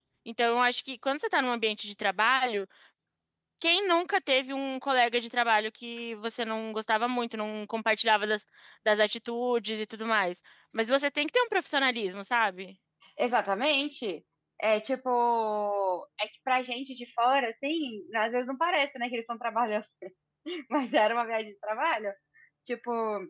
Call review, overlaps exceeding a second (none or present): none